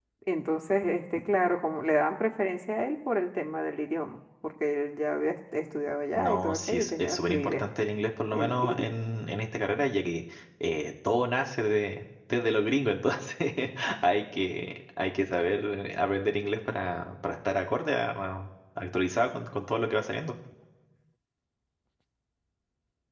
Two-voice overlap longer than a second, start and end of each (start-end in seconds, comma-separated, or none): 6.2-7.6